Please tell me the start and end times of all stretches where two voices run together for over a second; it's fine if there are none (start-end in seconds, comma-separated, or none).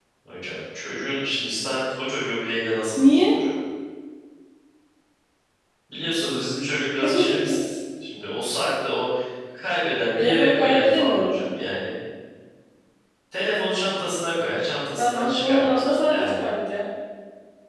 10.2-11.5, 15.0-16.4